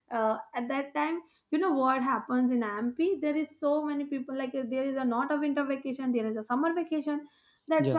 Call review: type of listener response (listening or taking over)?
listening